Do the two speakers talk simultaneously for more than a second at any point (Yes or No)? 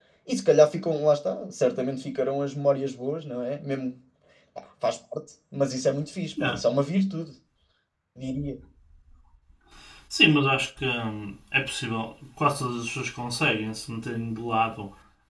No